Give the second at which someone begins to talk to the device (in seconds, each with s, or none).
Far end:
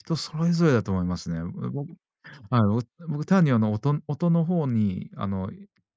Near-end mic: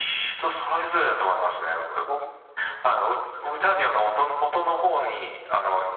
none